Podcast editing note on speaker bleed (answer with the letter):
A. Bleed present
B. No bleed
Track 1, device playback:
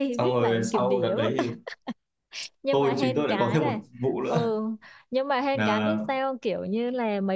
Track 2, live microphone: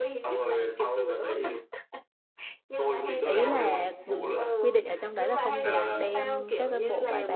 A